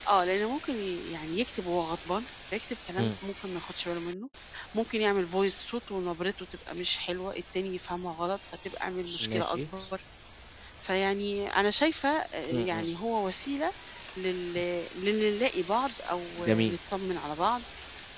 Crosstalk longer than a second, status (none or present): none